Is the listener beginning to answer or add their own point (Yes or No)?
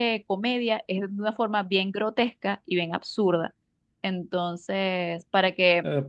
Yes